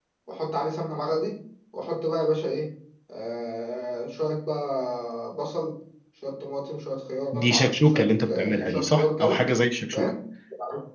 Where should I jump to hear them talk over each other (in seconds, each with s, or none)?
7.3 s